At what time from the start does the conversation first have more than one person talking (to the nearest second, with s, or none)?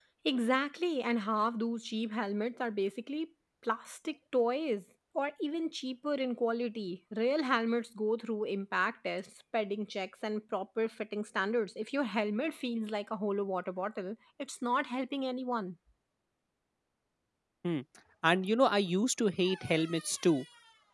none